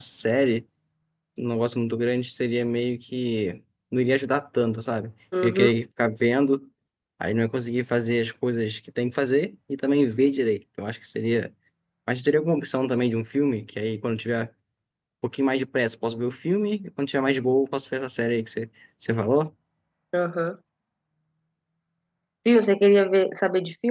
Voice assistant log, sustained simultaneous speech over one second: none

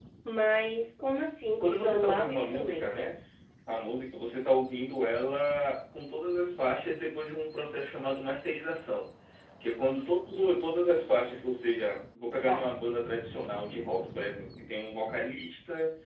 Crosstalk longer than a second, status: present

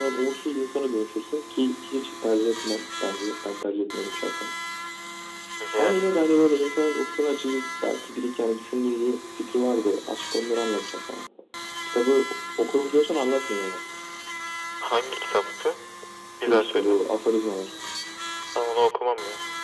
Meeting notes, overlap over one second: none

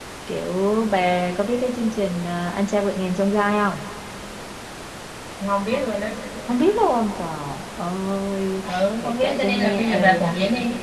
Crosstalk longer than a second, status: present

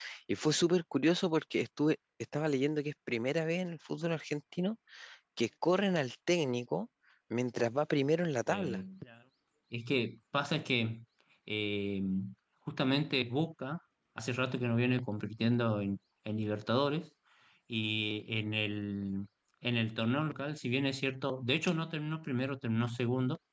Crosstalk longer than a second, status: none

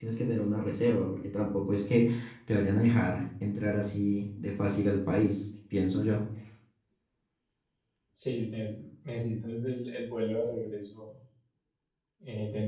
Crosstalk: none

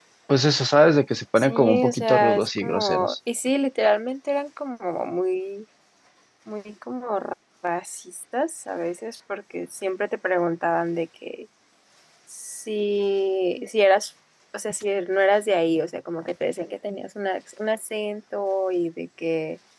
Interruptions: present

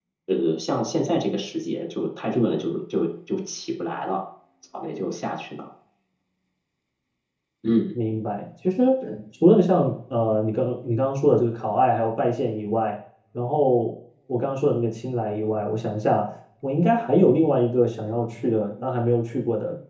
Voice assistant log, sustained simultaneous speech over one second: none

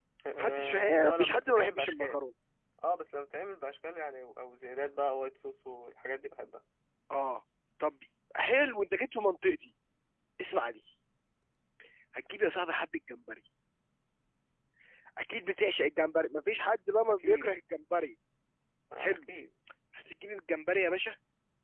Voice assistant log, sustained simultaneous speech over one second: present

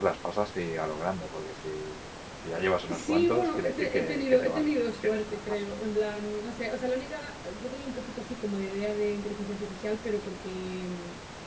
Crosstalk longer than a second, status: present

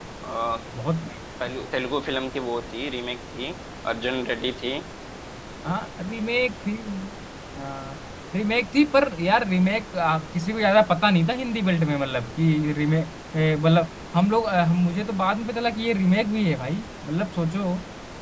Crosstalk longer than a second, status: none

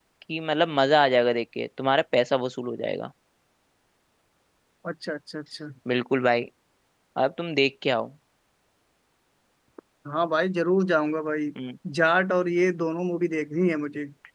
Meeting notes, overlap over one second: none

